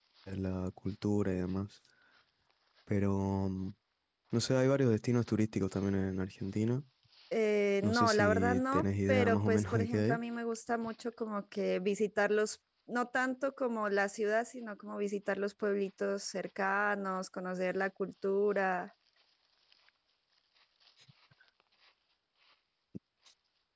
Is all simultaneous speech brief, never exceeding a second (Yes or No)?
No